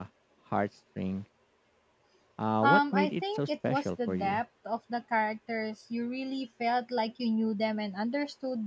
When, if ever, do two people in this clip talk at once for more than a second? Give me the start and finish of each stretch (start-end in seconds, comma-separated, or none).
2.6-4.4